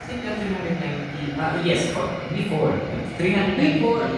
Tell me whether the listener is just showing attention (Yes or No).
Yes